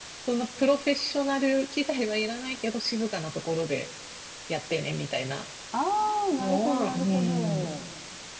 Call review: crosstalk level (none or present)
present